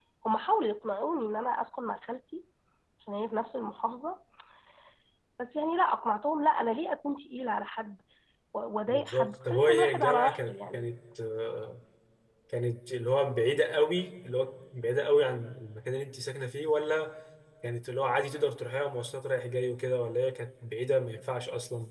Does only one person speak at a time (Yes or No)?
No